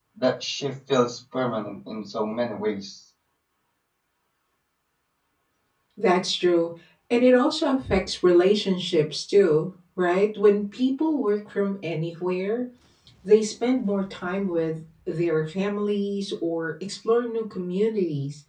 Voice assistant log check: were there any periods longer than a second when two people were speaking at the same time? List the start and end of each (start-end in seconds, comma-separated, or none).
none